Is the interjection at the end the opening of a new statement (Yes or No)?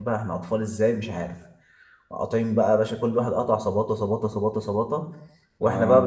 No